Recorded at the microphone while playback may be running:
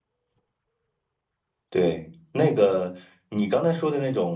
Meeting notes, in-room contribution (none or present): present